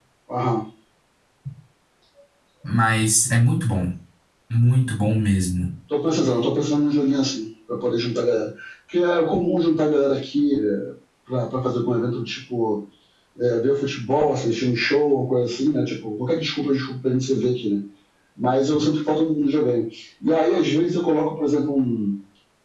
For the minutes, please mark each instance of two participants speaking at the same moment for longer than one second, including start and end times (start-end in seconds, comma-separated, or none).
none